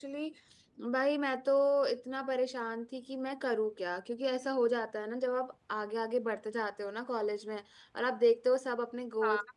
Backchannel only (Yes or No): Yes